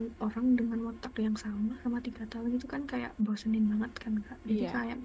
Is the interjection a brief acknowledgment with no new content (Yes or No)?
Yes